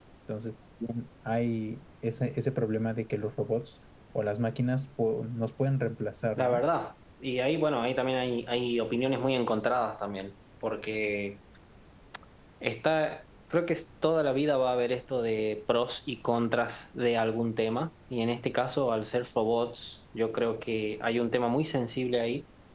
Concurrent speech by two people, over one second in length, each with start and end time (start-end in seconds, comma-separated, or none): none